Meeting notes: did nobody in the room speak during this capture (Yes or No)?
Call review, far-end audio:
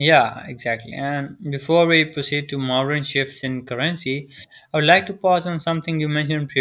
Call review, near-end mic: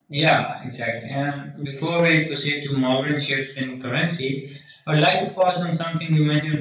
Yes